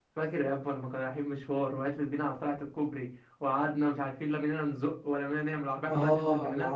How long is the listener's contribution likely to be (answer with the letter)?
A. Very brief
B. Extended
B